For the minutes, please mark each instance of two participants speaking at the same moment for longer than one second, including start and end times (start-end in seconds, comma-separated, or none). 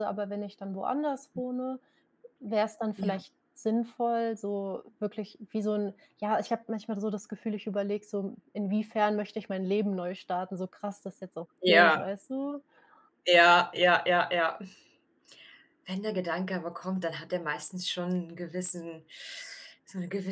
none